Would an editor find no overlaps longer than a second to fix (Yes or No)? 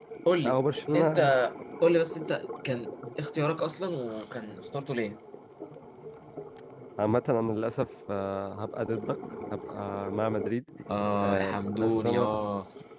No